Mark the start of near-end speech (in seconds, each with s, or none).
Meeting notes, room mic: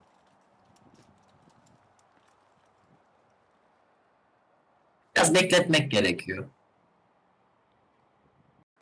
5.2 s